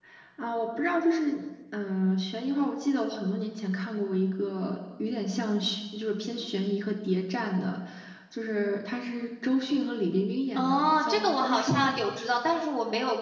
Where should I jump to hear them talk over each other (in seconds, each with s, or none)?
10.6 s